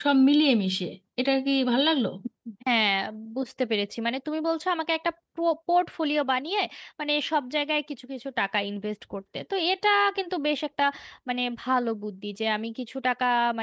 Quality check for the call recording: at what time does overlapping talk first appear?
none

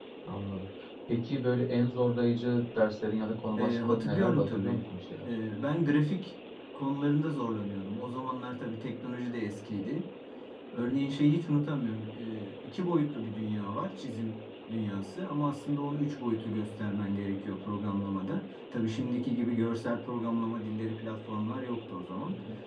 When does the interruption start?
3.6 s

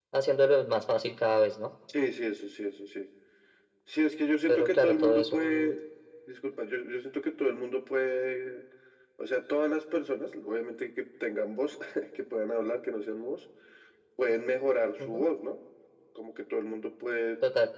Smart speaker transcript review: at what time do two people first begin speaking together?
4.5 s

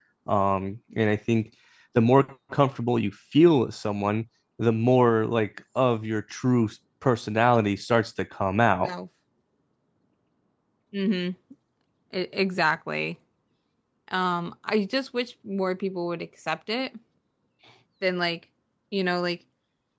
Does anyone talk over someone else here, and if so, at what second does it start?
none

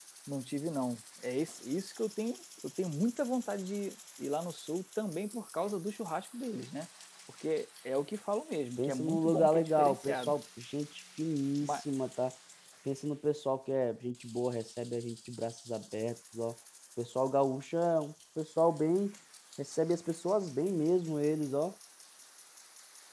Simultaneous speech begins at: 8.8 s

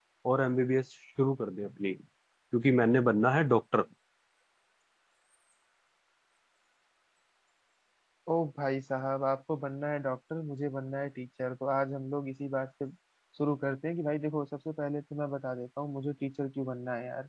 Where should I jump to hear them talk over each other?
none

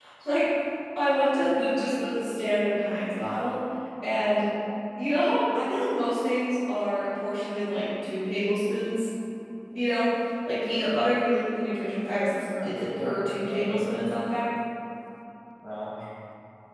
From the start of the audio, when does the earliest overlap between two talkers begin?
12.0 s

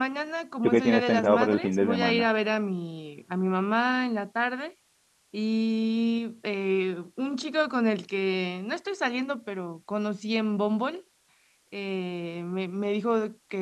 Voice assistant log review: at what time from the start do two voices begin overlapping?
0.6 s

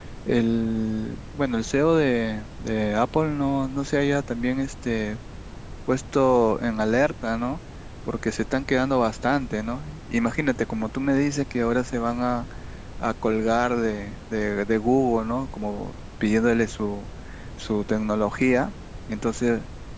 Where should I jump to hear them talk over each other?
none

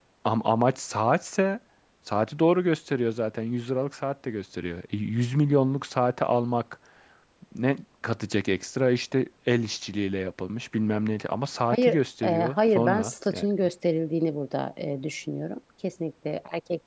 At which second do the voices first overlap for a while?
11.7 s

